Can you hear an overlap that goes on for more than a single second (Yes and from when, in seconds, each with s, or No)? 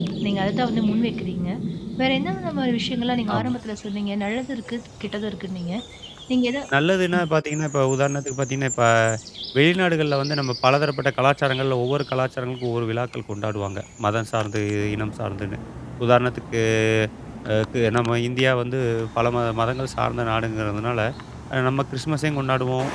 No